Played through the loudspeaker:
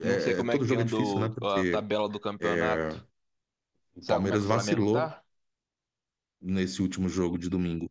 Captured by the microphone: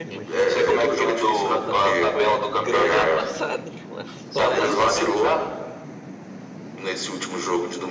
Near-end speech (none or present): present